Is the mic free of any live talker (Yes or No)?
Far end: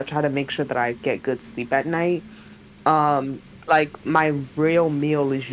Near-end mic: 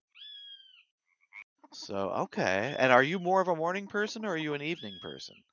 No